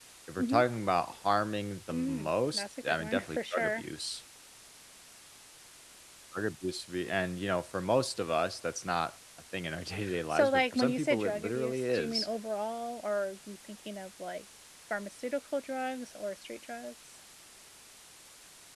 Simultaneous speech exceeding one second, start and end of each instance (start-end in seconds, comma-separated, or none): 1.9-3.9, 10.3-12.3